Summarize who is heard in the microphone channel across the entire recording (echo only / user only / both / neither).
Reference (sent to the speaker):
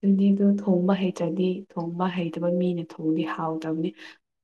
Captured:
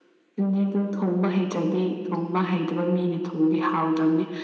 echo only